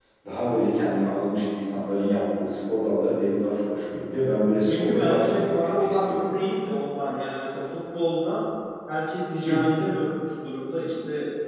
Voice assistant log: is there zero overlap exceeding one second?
No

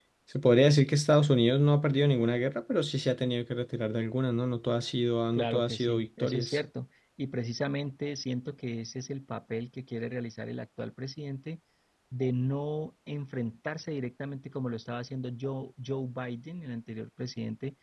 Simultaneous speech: Yes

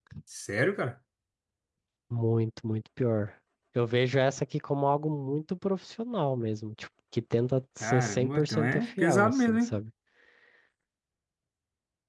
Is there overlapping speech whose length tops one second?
Yes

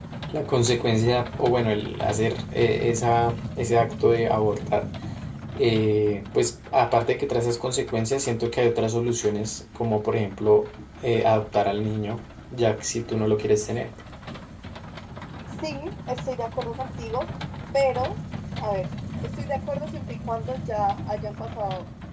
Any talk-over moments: No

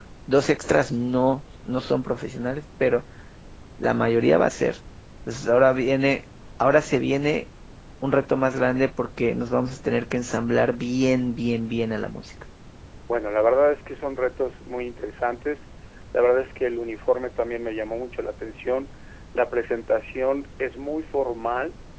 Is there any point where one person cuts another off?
No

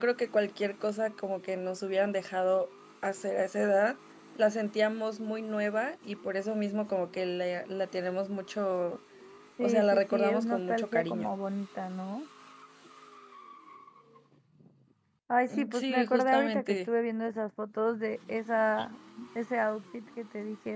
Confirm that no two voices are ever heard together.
No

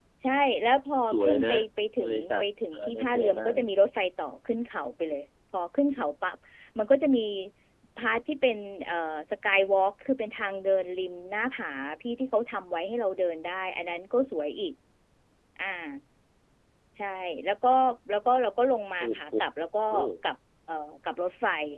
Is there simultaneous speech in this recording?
Yes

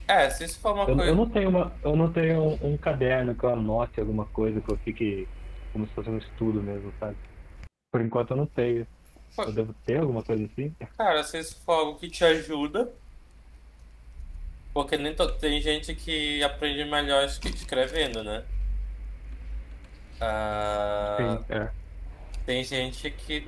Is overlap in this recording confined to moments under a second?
Yes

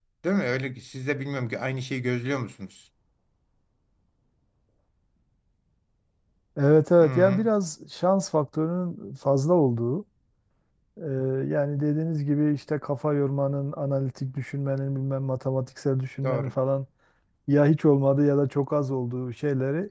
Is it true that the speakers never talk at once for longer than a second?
Yes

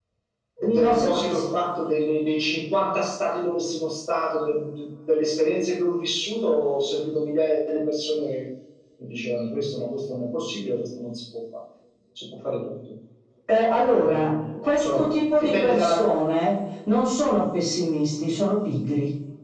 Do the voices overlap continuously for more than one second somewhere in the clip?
Yes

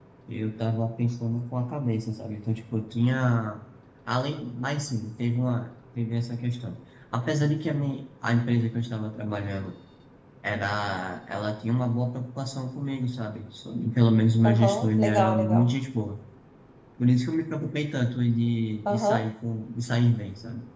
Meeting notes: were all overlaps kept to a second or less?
No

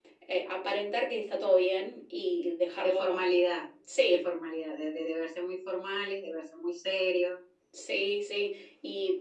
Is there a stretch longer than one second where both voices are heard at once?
No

